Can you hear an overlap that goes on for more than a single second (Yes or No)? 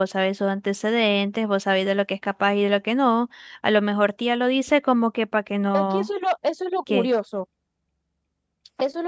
No